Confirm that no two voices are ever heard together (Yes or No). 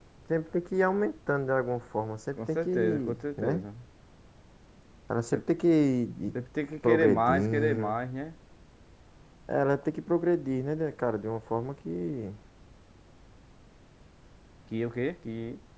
No